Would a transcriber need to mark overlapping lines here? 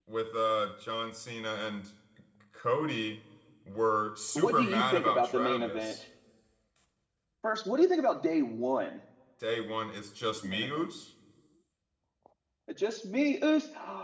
Yes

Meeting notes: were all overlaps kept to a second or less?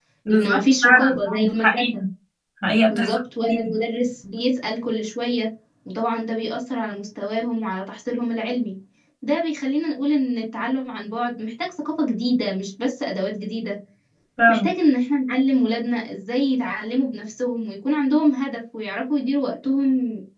No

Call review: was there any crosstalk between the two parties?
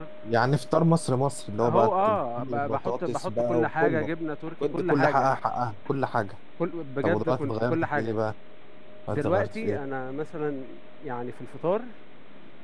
Yes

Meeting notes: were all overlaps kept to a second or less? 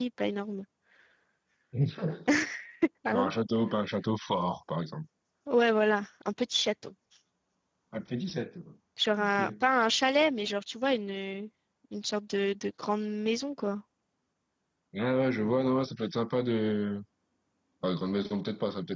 Yes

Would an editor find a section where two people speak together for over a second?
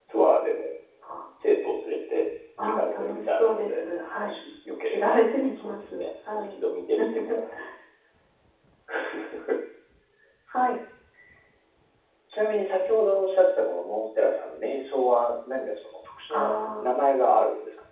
Yes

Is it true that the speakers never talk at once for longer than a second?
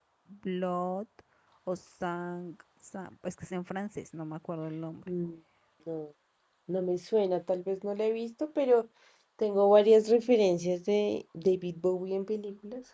Yes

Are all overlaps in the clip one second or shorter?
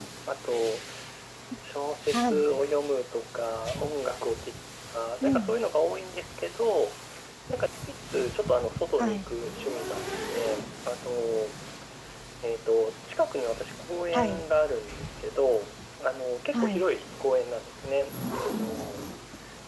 Yes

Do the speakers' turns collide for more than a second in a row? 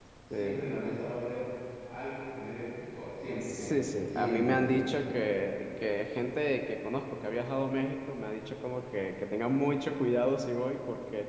Yes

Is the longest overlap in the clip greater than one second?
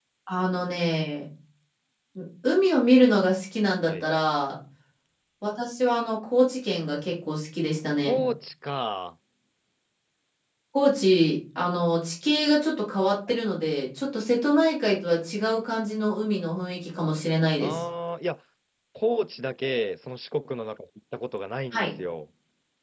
No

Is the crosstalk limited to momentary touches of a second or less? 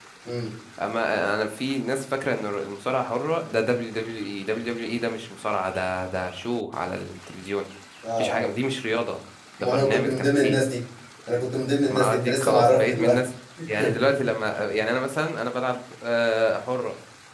No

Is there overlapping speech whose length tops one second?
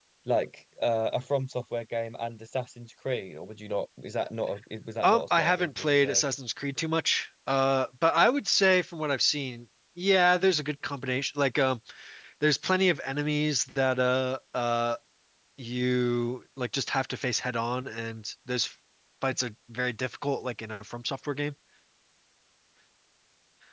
Yes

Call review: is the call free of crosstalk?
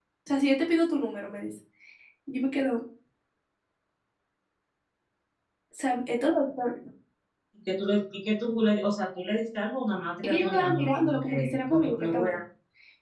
No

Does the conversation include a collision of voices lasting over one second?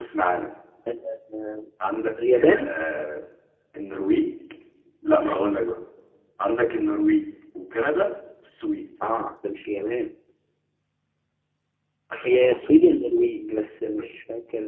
No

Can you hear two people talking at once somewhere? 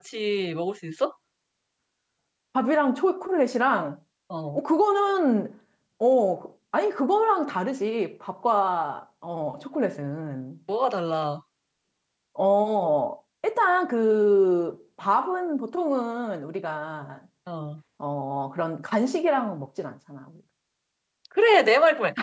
No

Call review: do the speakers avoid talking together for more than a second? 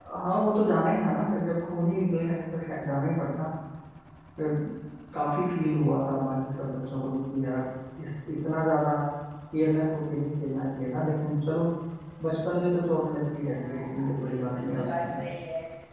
No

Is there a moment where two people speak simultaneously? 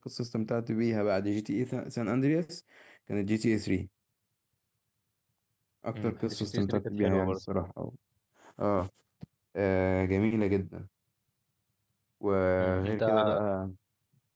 Yes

